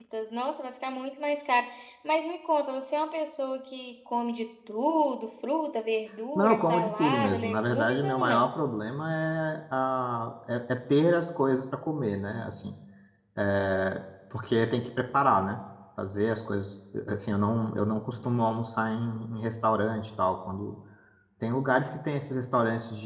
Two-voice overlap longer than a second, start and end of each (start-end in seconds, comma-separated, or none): 6.3-8.5